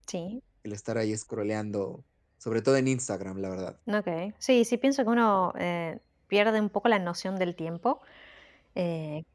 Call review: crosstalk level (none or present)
none